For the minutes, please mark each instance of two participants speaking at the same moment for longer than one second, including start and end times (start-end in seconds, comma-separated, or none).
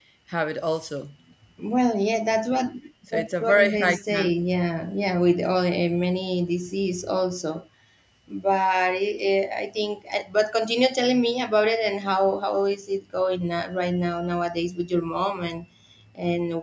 3.1-4.3